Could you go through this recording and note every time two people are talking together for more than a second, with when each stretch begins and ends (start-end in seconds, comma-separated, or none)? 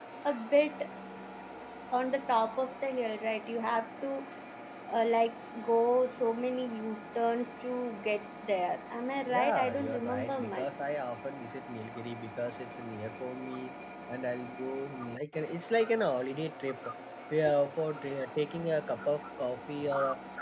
9.2-10.7